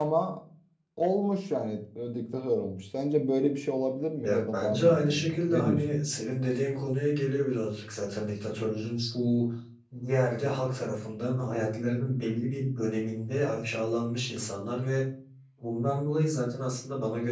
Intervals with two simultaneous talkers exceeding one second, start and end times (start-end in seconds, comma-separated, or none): 4.2-6.0